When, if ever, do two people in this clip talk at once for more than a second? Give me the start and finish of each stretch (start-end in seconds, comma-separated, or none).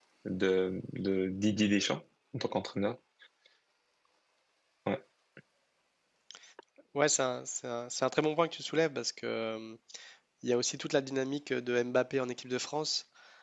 none